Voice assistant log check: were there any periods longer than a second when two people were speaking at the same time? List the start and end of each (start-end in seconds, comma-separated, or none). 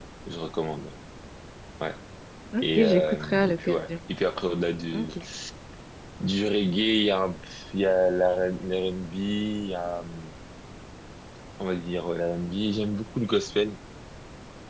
2.6-3.9